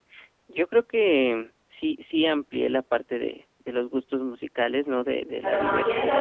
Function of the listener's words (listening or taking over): taking over